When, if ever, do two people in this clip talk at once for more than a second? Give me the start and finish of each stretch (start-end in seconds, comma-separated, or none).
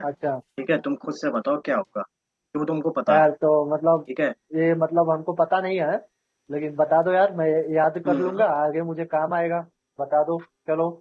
none